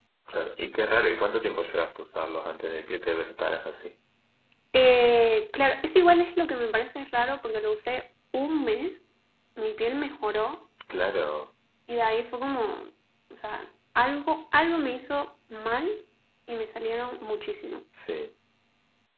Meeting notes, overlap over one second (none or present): none